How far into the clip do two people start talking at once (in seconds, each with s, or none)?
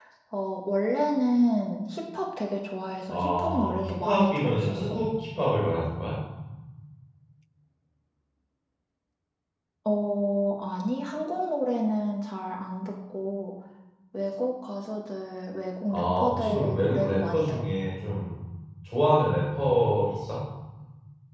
3.1 s